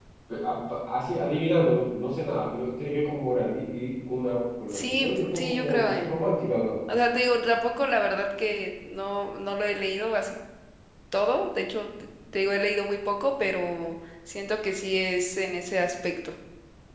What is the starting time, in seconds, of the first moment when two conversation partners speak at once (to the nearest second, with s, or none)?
5 s